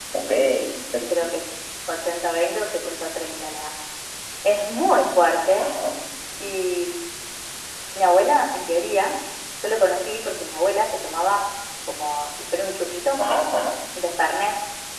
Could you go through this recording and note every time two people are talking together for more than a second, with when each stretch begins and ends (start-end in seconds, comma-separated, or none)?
none